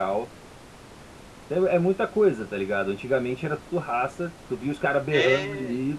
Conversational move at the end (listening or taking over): listening